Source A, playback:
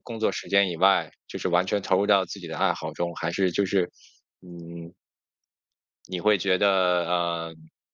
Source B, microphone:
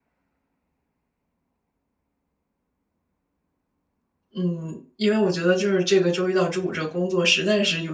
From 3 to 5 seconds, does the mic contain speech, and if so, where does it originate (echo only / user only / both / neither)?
user only